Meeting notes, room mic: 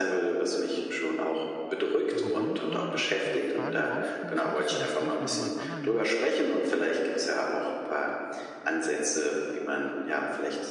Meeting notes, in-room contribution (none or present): present